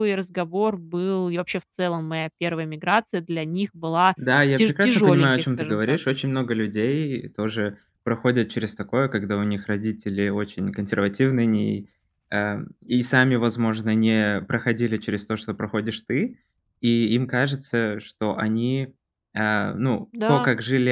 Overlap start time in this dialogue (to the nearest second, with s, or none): 5 s